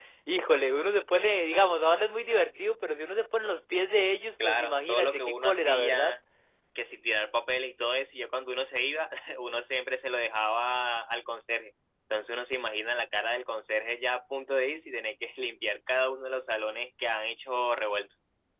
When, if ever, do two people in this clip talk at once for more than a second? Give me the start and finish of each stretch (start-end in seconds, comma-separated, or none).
4.4-6.1